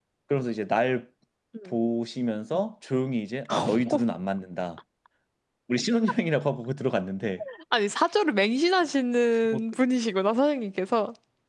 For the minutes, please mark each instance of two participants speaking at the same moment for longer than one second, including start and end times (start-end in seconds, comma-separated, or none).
none